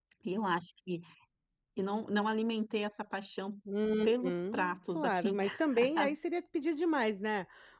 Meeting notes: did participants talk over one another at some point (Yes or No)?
Yes